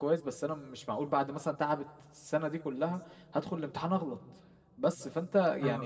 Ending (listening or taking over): listening